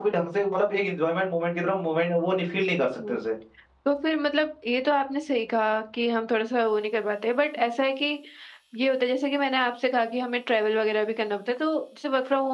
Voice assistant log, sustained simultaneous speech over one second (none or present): none